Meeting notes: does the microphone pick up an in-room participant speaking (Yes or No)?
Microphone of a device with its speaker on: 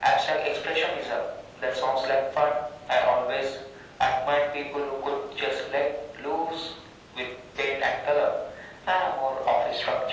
No